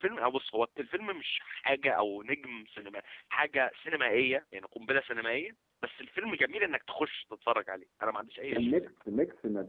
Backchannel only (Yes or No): No